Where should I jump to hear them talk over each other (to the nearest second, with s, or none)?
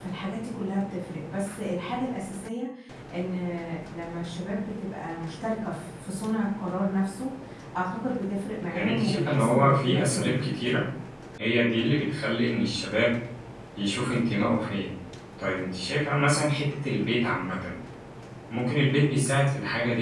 9 s